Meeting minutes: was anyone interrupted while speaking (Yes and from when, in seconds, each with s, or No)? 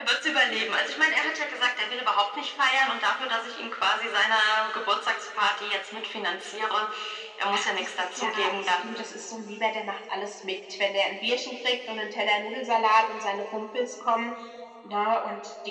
Yes, from 7.5 s